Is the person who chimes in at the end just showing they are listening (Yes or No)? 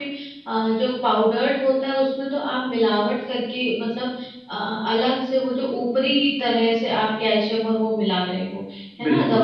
Yes